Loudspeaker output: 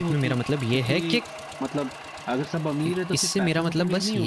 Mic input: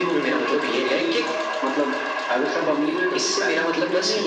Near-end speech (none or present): none